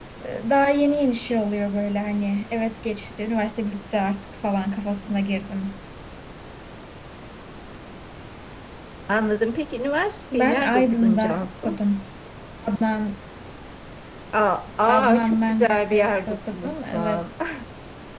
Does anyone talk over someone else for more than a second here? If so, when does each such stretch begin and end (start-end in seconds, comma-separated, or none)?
10.3-11.8, 14.9-17.2